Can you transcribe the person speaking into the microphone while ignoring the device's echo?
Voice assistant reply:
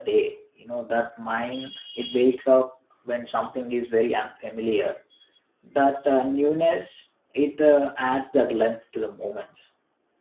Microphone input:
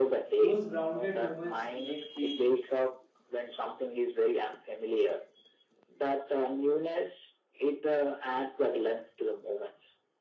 Those grounded moments make feel

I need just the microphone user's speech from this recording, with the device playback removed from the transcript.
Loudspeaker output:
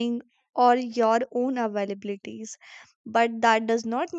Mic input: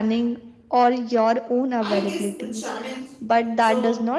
i guess the challenge it's a

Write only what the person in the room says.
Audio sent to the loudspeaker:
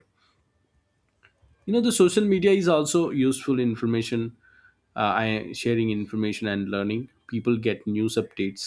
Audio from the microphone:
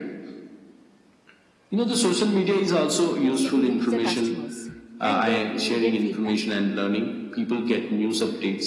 t- to reach the customers and get immediate feedback,

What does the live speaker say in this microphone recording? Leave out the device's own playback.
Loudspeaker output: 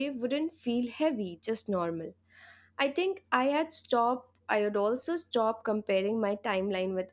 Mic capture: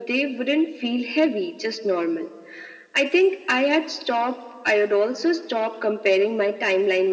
none

